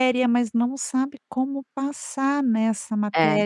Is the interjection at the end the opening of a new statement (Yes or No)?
No